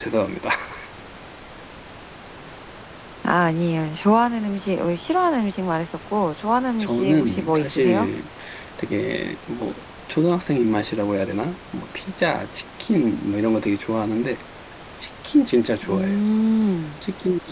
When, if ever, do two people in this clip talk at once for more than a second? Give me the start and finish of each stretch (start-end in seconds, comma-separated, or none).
6.8-8.1